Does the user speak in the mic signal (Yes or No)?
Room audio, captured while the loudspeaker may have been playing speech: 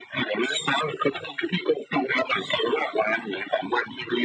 No